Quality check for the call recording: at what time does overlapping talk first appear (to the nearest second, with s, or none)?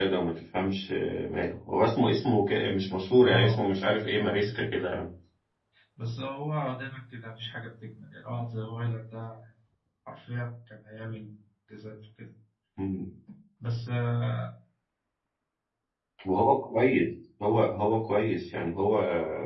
3 s